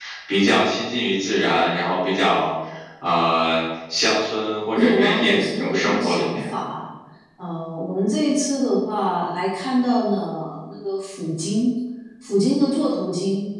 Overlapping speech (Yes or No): Yes